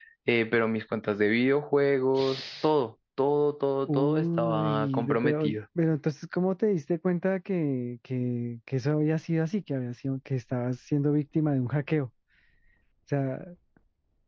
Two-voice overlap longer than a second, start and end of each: 3.9-5.5

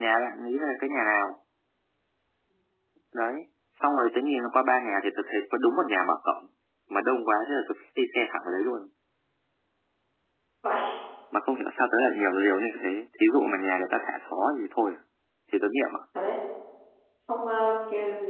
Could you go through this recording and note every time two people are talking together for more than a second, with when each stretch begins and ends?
none

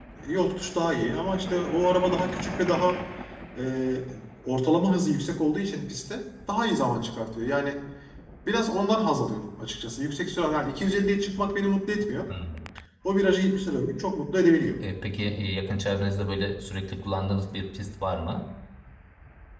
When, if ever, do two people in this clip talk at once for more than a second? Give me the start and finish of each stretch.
none

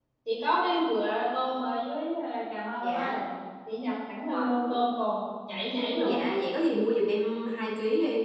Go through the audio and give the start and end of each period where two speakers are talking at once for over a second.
none

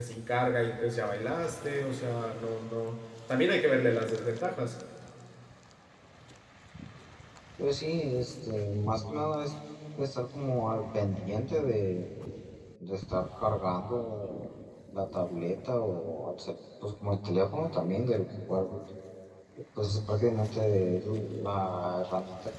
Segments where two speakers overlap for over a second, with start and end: none

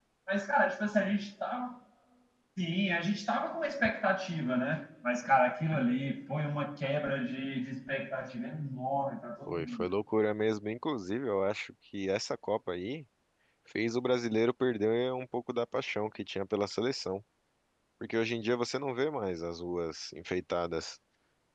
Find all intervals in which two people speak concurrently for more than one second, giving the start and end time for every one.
none

